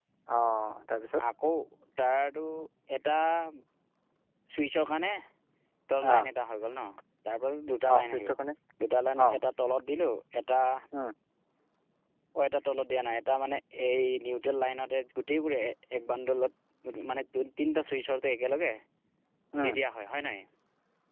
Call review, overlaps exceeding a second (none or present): none